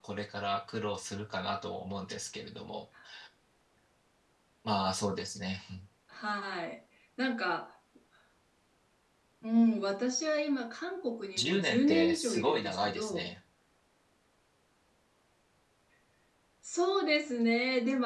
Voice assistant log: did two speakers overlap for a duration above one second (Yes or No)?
Yes